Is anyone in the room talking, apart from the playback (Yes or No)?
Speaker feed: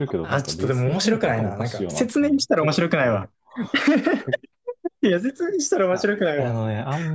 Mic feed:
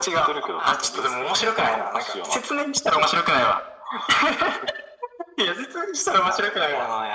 No